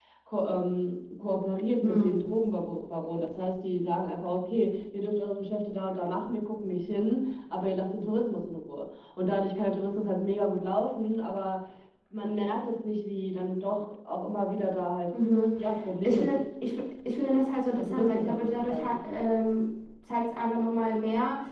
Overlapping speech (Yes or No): Yes